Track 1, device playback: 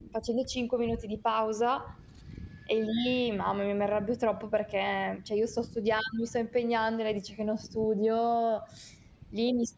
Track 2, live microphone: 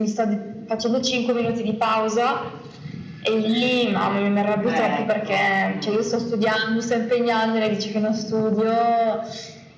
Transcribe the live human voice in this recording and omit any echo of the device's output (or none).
Ecco, mh.